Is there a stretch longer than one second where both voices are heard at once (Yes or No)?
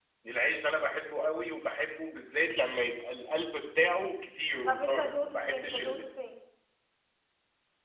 Yes